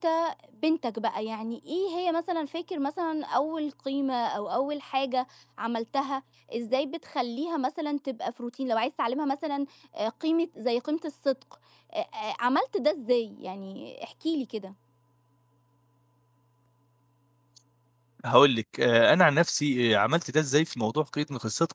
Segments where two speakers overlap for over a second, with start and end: none

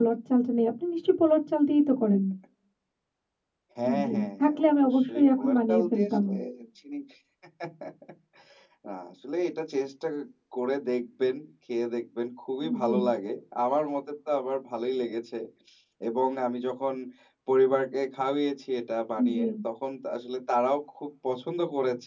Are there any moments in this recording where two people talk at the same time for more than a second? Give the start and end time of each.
4.0-6.2

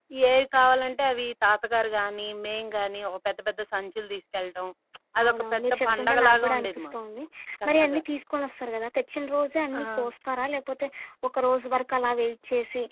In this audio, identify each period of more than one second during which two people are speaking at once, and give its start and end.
5.2-7.0

